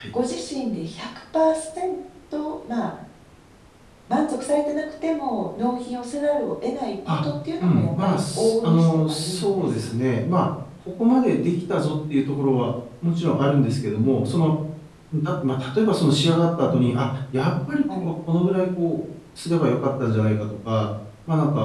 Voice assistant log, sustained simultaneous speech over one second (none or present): present